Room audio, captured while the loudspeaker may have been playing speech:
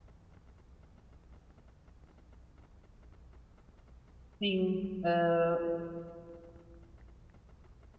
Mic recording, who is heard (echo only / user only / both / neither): user only